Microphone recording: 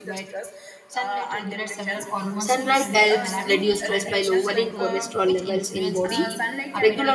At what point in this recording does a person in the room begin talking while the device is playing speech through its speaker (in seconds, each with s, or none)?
2.4 s